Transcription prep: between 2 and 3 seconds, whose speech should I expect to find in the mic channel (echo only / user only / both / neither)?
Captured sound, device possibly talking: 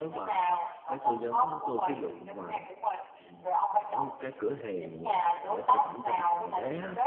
both